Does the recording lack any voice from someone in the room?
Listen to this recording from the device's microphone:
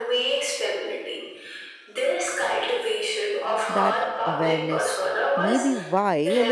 No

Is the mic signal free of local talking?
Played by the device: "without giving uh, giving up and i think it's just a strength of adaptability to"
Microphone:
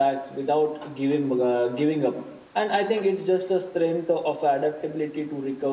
Yes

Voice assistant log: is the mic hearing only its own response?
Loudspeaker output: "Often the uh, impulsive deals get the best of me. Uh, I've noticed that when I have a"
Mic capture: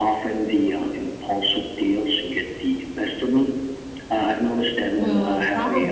No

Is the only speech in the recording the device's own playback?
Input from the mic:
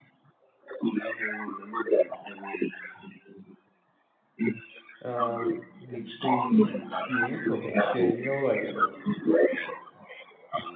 No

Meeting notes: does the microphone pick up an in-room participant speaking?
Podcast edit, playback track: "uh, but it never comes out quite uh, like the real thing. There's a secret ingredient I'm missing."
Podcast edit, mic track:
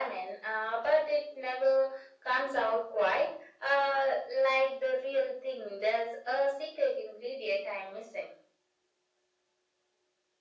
No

